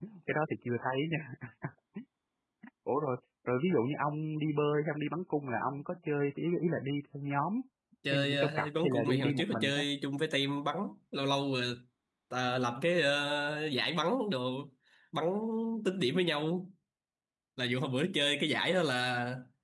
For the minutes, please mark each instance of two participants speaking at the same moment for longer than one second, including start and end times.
8.1-9.8

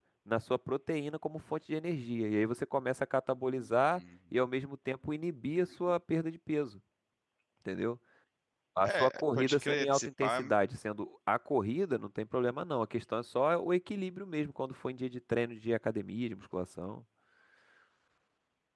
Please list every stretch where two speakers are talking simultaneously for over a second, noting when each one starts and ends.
8.8-10.4

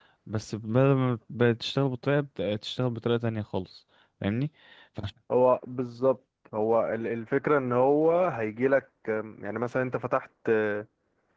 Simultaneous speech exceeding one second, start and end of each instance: none

